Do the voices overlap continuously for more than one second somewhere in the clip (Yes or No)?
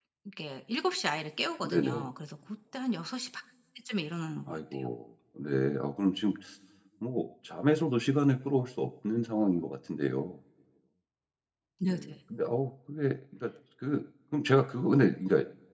No